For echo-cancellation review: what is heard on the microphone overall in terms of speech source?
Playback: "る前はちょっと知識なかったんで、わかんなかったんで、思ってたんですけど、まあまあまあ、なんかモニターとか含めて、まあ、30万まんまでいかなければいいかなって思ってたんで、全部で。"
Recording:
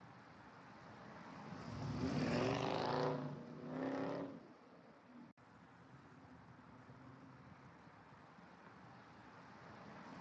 neither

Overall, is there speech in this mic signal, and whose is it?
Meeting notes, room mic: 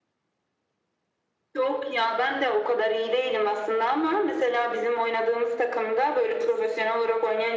echo only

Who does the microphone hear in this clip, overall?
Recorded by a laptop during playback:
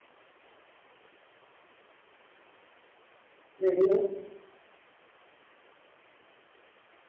user only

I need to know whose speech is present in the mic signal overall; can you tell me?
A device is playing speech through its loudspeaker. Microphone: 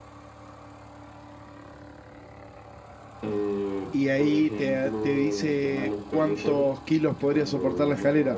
both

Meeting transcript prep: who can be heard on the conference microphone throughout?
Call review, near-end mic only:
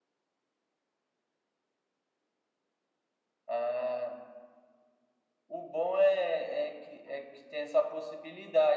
echo only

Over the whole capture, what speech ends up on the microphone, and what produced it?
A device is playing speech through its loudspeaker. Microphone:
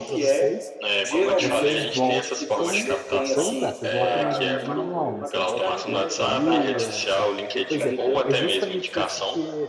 both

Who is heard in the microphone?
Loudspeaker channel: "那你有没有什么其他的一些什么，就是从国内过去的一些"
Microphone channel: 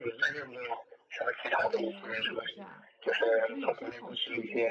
both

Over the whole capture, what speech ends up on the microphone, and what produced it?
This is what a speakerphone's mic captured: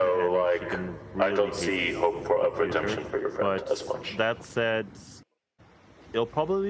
both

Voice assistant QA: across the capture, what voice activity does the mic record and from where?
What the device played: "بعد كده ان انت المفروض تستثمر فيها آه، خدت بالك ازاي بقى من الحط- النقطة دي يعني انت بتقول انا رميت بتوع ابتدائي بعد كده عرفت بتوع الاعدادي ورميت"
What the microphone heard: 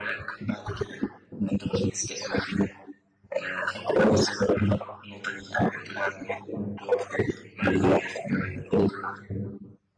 echo only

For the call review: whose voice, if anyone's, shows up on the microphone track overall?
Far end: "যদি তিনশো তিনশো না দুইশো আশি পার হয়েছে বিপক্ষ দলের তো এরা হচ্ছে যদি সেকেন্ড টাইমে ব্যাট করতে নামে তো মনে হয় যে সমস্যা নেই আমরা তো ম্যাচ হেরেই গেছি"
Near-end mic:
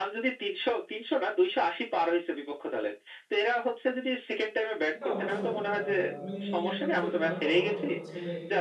both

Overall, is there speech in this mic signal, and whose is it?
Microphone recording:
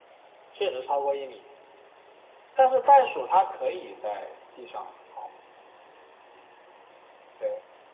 echo only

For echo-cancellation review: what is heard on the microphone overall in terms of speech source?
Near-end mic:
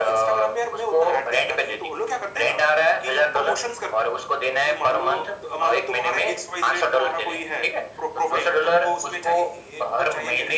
echo only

